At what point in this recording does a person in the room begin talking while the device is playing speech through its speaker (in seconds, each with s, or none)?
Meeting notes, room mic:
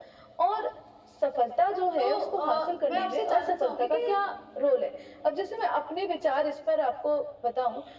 2.0 s